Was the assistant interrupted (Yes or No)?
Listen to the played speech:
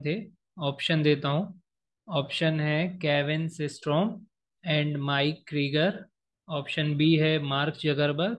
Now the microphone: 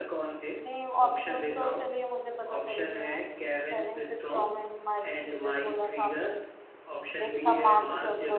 Yes